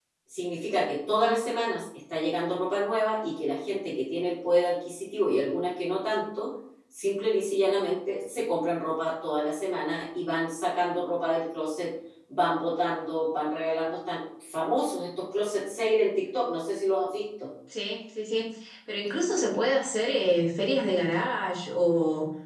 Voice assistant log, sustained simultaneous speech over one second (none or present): none